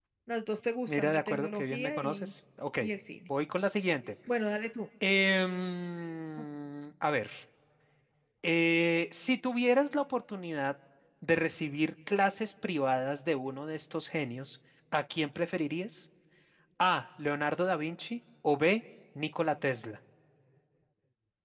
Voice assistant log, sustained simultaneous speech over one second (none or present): present